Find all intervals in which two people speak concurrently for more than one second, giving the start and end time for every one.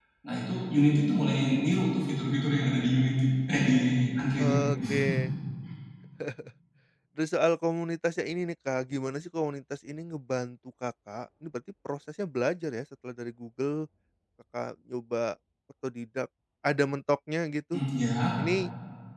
none

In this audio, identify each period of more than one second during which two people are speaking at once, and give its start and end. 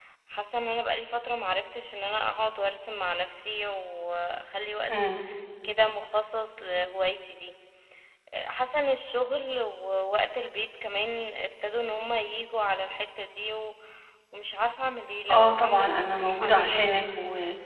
15.3-17.0

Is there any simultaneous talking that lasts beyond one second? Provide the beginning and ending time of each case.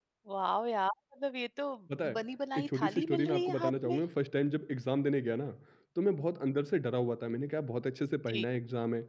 2.6-4.0

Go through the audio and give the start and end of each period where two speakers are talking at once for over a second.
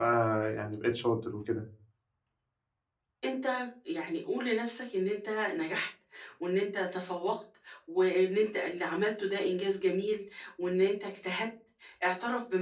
none

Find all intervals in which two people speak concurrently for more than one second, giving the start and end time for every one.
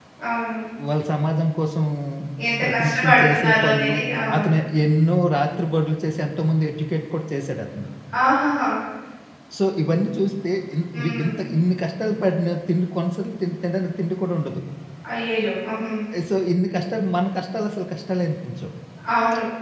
2.6-4.0

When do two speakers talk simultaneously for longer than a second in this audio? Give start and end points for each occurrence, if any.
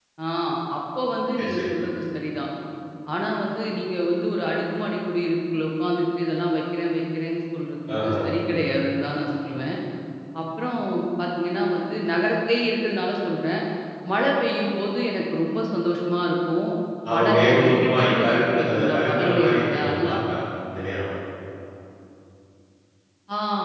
17.1-20.2

